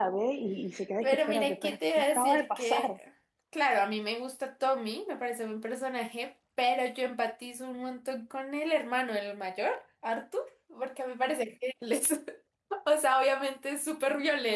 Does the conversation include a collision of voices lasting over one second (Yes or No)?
Yes